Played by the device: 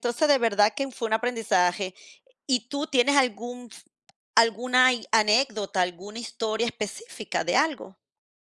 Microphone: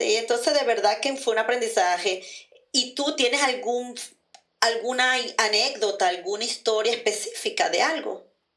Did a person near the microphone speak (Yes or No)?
No